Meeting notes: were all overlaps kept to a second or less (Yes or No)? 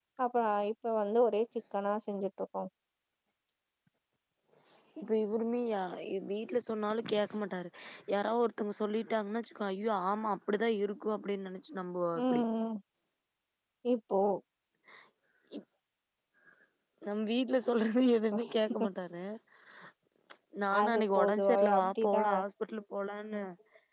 No